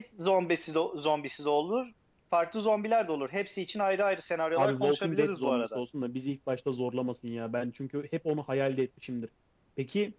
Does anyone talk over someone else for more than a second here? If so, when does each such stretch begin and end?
4.6-5.8

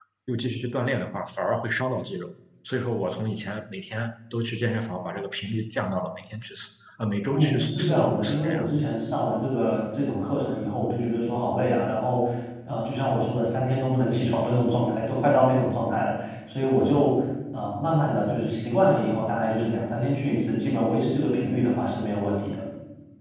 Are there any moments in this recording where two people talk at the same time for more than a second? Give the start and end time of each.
7.3-8.6

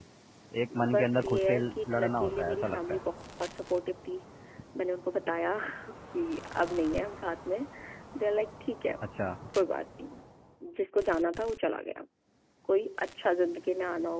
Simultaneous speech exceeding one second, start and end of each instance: 0.9-3.0

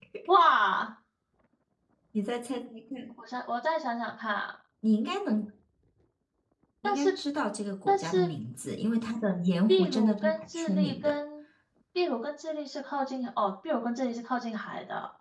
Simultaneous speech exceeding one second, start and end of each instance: 9.7-11.1

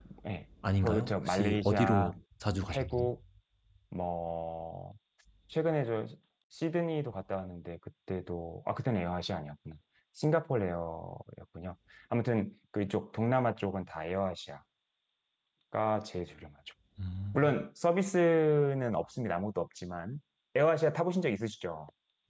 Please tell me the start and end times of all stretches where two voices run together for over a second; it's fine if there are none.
0.8-2.1

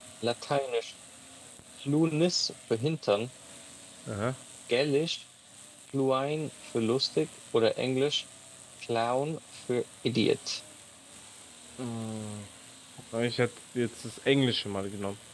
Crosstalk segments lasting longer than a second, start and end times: none

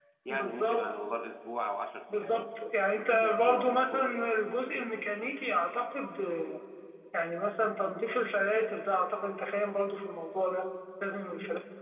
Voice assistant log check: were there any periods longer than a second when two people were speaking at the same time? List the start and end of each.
2.9-4.3

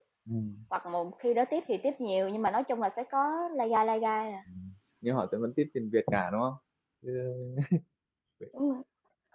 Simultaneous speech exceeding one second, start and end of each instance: none

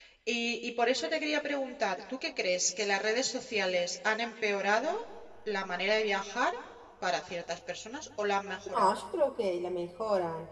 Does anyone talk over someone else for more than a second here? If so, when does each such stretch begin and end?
none

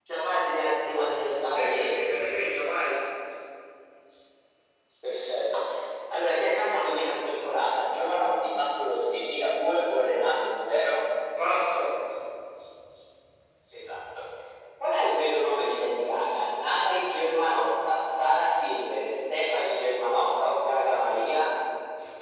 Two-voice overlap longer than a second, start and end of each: none

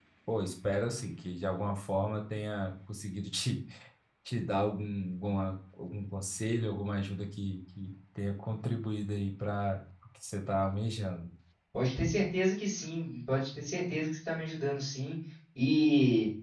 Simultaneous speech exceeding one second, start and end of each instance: none

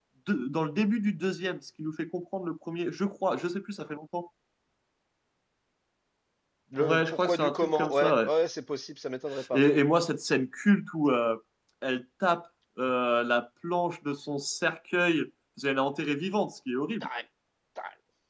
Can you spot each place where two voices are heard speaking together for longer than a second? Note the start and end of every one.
6.8-8.3

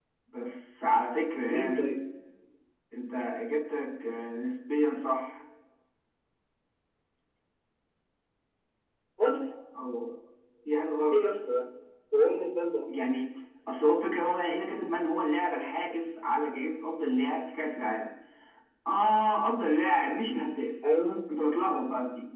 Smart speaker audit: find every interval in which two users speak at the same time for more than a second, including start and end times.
none

